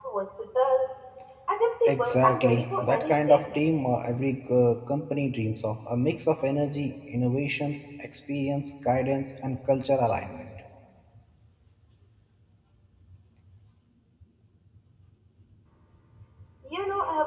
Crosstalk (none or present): present